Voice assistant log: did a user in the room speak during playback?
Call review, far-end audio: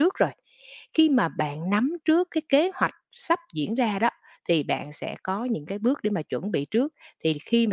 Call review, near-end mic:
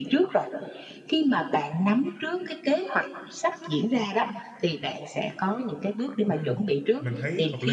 Yes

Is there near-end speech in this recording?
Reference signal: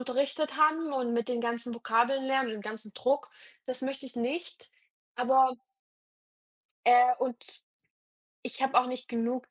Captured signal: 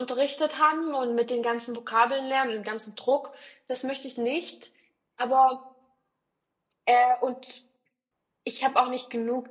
No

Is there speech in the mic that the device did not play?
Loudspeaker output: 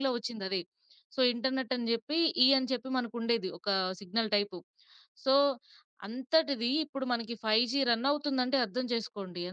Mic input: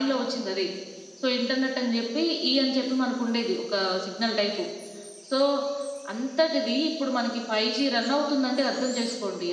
No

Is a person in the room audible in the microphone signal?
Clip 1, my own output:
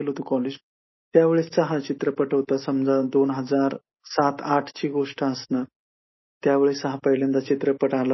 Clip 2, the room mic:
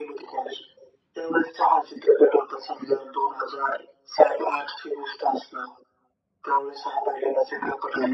No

